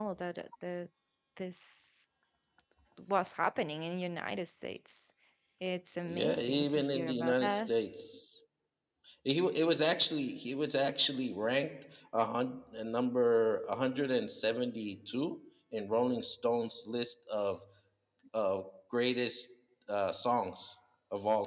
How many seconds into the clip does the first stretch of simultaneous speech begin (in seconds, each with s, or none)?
6.0 s